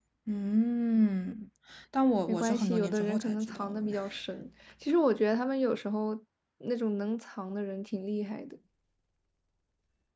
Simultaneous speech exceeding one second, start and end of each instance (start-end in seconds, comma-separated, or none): 2.3-4.0